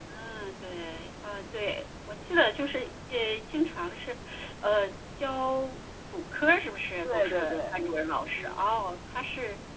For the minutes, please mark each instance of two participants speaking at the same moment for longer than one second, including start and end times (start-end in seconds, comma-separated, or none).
7.0-8.7